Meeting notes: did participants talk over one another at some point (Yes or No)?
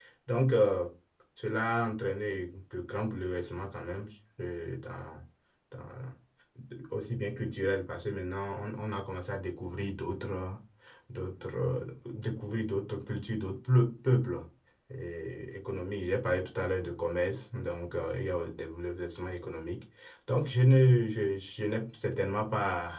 No